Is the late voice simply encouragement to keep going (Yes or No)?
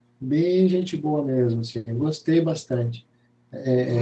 No